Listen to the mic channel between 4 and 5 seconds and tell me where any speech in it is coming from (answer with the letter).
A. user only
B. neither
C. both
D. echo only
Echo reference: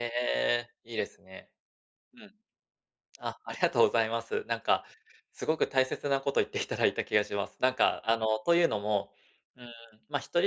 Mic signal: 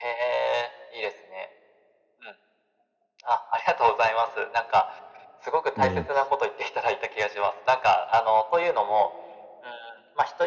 D